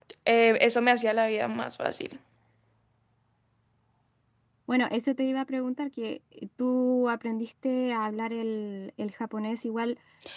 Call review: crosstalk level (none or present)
none